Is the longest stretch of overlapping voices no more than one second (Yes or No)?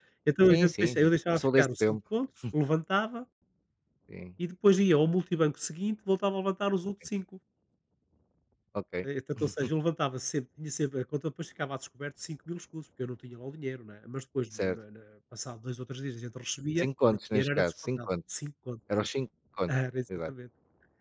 No